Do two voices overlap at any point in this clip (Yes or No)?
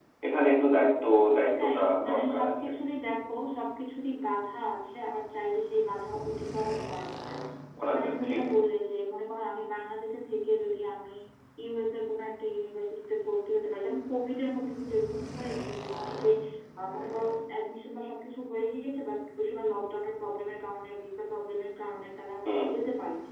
Yes